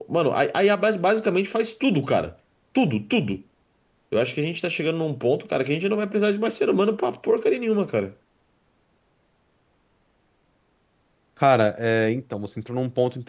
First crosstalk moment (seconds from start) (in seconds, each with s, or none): none